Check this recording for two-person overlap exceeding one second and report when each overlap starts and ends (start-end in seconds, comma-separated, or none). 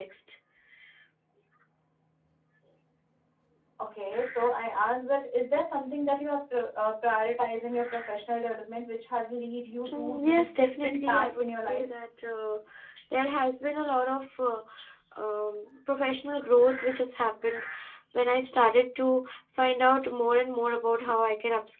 9.9-11.9